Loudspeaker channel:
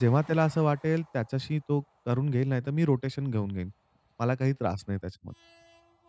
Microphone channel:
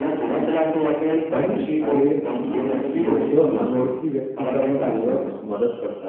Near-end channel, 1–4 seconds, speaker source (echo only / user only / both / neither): both